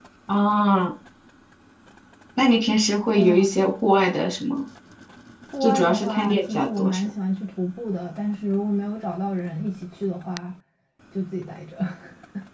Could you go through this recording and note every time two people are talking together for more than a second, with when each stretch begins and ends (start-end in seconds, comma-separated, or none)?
5.6-7.0